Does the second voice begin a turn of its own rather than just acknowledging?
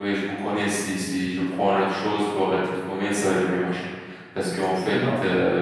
No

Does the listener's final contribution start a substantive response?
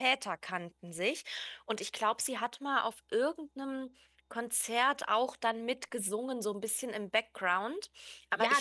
Yes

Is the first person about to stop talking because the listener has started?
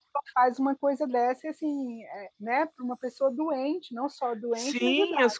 Yes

